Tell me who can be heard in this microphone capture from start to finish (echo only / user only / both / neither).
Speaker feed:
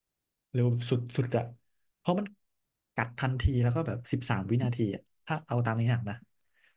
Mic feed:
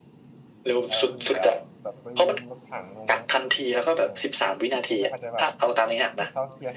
both